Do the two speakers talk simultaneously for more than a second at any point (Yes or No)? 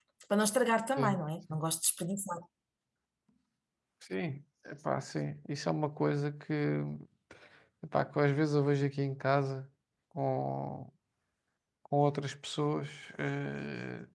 No